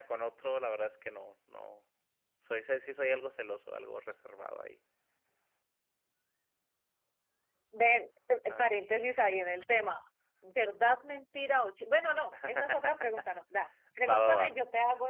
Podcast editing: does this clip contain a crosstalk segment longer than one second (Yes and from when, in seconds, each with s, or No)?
No